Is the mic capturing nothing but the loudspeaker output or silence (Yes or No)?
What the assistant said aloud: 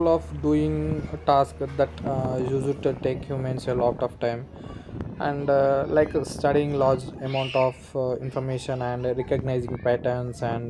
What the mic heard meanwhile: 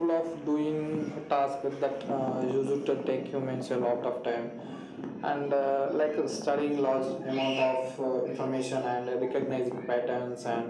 Yes